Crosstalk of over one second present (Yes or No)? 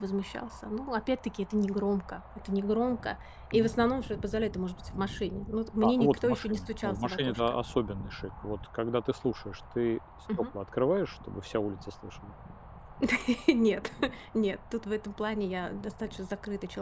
Yes